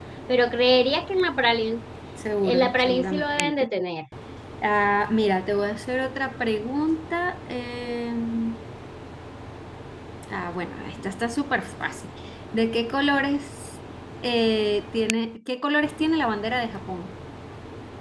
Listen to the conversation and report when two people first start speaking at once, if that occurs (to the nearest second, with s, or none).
2 s